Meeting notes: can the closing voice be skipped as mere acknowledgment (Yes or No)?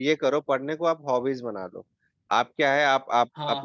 Yes